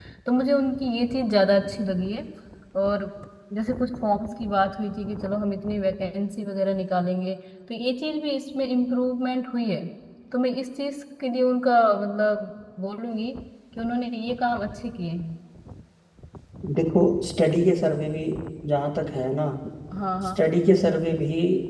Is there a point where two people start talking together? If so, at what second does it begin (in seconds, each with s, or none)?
none